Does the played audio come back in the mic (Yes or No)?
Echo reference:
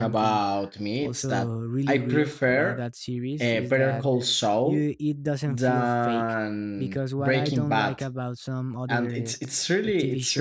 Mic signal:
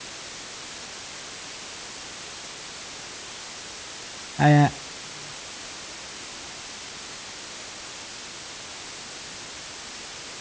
No